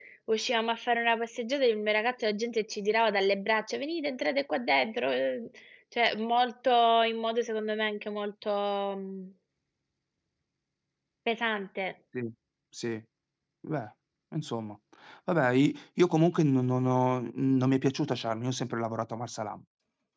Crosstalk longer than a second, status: none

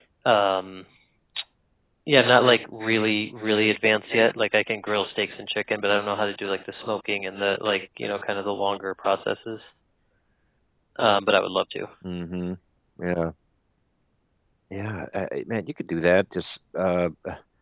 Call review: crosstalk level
none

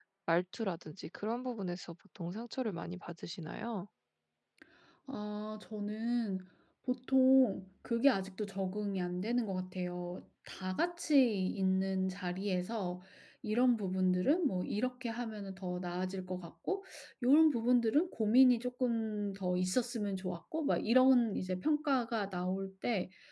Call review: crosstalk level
none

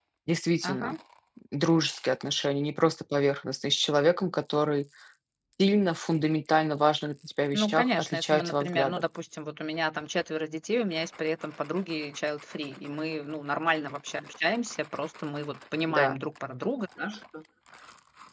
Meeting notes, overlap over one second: present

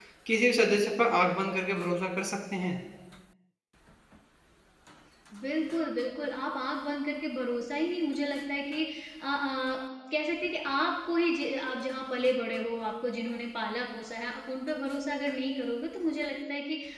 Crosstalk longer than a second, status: none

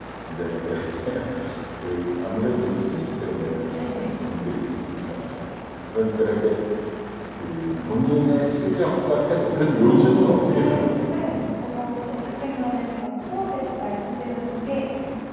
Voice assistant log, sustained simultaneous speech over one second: present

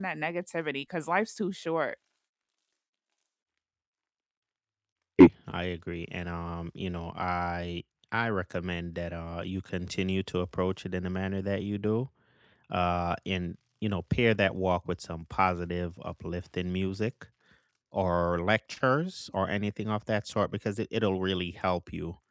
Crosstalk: none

